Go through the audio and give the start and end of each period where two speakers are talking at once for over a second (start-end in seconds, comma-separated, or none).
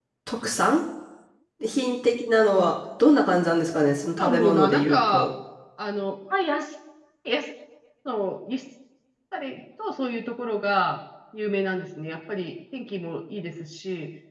3.8-5.3